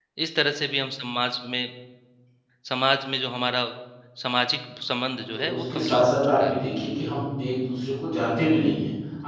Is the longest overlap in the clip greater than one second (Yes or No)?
Yes